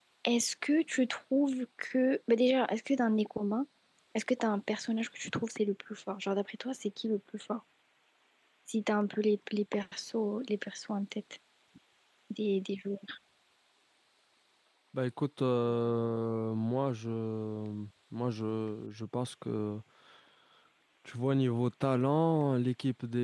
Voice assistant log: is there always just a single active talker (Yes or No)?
Yes